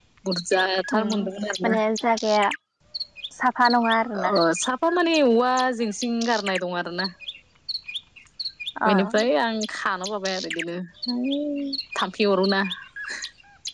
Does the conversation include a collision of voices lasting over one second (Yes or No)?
No